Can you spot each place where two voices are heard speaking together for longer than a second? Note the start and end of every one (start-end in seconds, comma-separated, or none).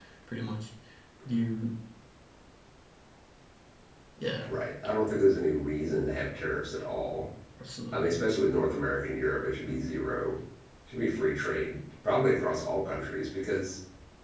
none